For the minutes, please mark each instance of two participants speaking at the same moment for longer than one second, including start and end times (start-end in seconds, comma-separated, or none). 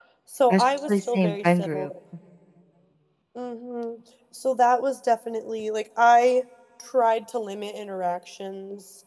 0.5-1.9